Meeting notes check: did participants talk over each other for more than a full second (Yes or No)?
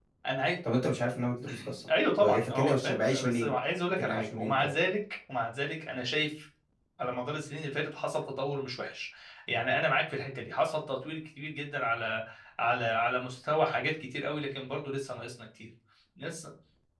Yes